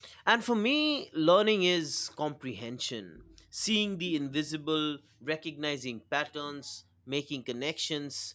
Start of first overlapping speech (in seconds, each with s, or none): none